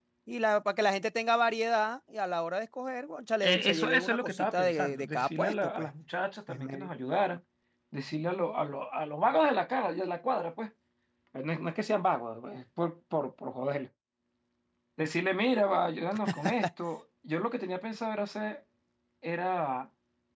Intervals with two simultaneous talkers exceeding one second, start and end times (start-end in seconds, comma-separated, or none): 3.4-5.9